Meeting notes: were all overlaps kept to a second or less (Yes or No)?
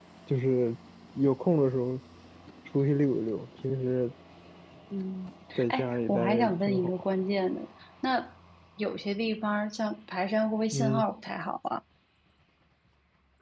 No